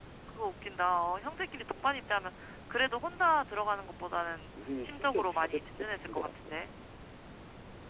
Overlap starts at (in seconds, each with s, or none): 4.8 s